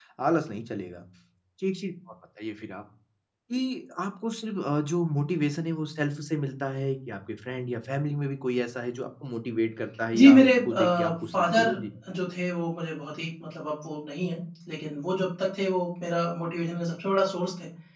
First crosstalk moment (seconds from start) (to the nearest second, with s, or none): 10 s